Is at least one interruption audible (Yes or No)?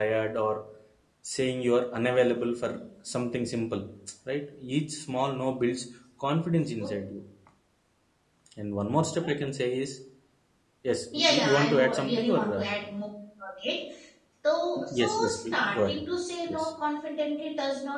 Yes